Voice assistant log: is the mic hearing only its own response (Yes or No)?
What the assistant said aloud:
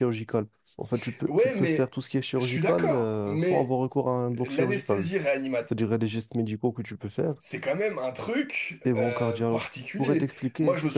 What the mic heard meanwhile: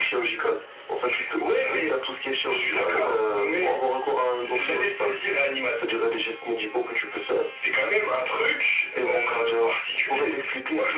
Yes